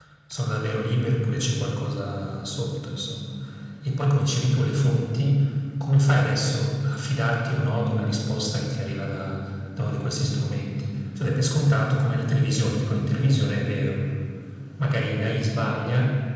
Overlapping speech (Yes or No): No